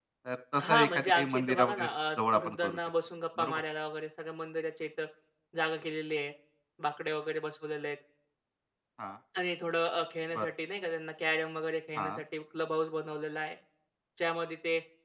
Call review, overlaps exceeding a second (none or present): present